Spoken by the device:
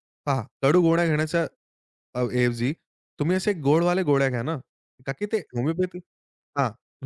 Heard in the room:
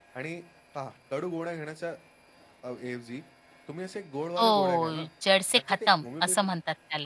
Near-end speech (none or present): present